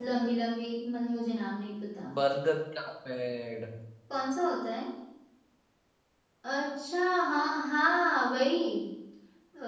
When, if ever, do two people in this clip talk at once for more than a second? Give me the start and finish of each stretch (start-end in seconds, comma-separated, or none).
none